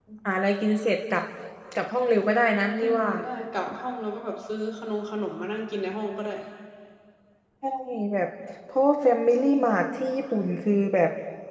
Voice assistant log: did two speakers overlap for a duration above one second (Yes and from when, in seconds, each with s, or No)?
No